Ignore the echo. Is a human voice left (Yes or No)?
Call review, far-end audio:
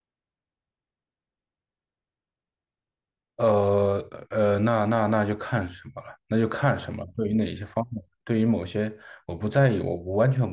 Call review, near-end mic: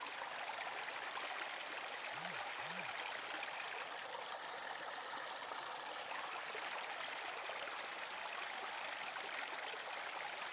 No